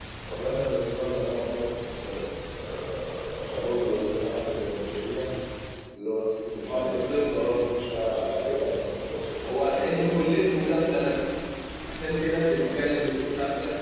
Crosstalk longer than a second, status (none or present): present